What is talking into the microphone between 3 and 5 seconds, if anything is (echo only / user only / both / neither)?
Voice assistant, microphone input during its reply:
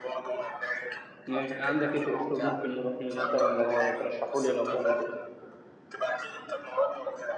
both